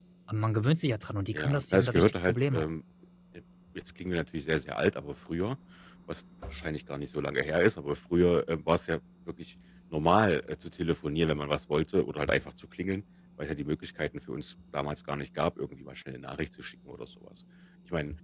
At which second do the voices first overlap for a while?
1.3 s

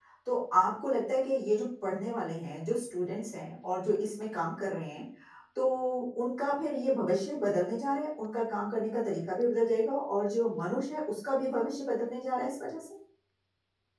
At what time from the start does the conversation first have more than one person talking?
none

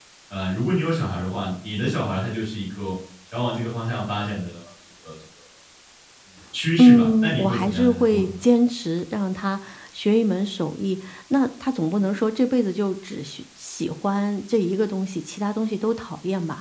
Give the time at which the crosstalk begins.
6.8 s

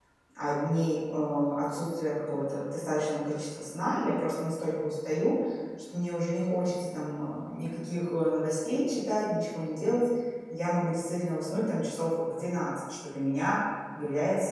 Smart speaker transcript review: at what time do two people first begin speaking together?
none

